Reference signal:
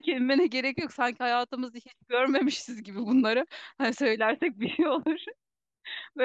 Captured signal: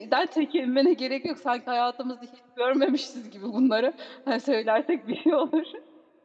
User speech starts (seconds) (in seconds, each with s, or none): none